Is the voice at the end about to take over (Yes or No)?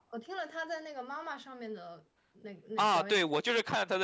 Yes